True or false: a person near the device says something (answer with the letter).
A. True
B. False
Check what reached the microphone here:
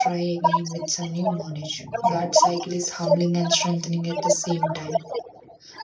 A